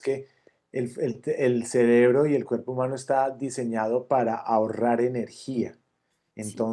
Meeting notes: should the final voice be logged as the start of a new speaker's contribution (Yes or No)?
No